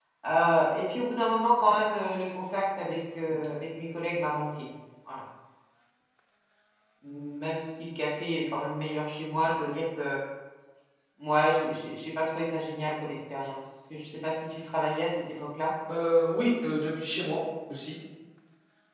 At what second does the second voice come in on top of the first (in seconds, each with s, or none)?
none